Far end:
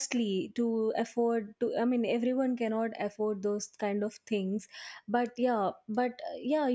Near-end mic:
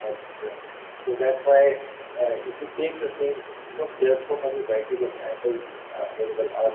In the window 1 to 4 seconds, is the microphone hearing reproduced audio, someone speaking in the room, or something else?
user only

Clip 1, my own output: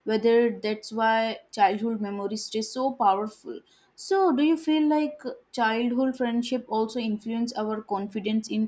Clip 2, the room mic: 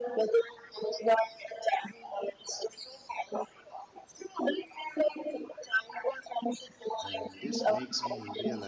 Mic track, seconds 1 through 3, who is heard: echo only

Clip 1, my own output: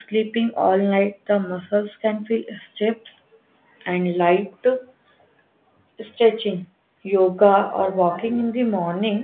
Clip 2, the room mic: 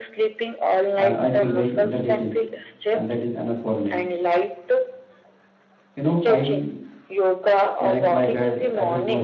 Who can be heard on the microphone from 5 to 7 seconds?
both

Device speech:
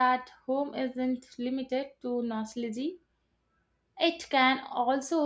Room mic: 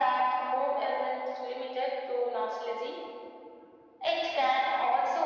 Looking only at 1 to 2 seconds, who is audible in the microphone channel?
echo only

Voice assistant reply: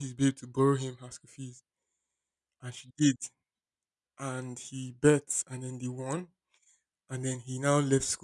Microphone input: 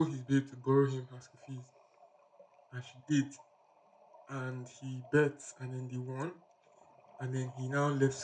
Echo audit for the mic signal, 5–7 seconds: echo only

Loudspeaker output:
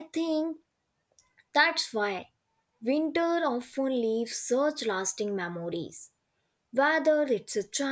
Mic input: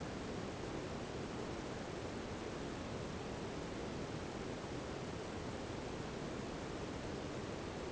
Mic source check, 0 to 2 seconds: neither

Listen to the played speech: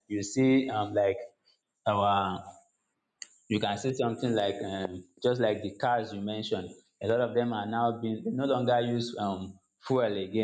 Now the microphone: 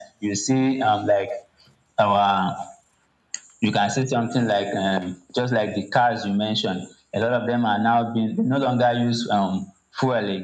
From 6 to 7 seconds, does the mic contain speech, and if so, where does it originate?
echo only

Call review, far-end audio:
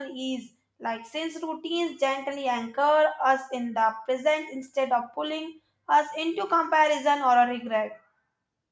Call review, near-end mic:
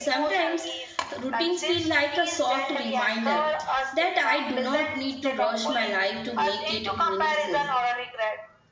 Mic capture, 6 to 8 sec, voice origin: both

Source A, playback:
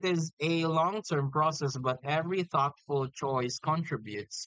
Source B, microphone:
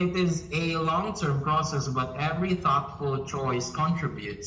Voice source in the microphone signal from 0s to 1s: echo only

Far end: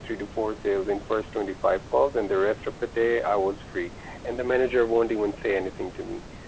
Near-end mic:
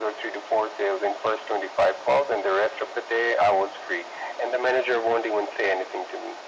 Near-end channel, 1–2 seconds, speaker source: echo only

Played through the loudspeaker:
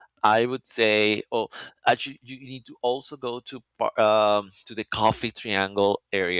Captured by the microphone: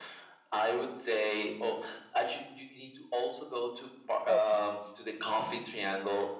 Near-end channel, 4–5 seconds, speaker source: both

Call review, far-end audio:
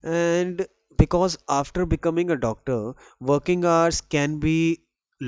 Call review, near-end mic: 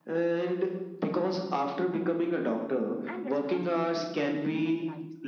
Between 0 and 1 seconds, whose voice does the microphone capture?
echo only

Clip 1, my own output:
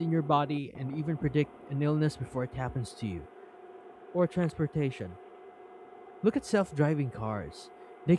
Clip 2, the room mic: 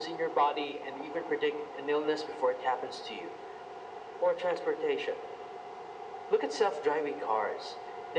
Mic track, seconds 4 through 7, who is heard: echo only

